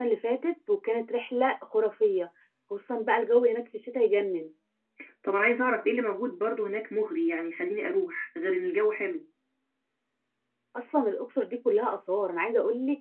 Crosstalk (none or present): none